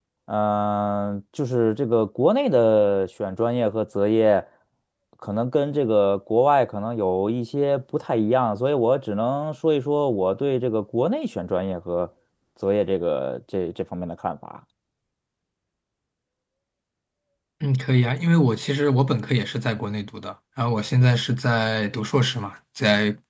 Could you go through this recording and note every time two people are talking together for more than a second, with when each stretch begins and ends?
none

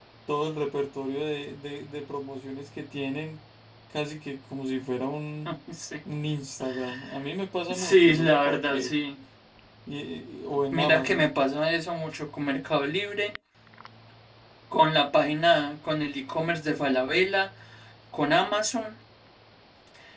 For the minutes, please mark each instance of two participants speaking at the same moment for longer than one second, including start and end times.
7.7-8.9

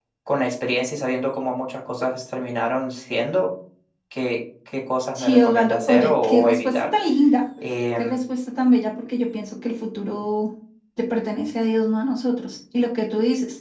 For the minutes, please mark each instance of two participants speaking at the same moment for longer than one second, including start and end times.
5.2-6.9

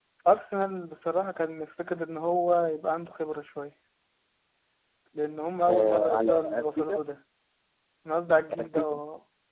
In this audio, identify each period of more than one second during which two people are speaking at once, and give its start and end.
5.6-7.0

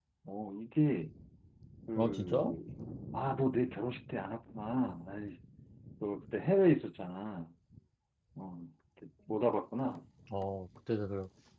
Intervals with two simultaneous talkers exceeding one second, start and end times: none

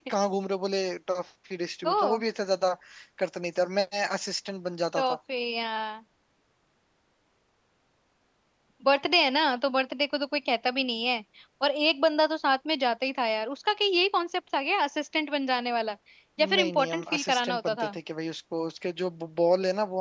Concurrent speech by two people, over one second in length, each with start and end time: 16.6-17.9

